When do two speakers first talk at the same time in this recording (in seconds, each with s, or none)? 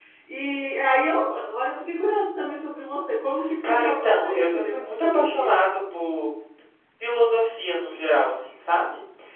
3.6 s